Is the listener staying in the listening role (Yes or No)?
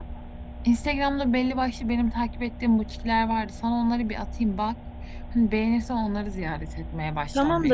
No